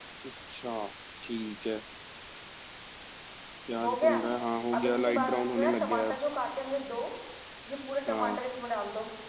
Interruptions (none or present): present